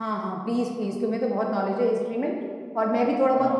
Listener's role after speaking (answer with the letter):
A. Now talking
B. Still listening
B